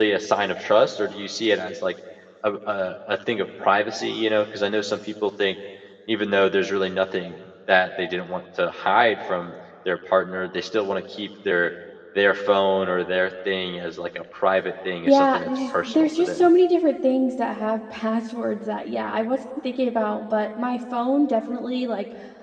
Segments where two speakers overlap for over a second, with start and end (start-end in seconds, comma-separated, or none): 15.0-16.5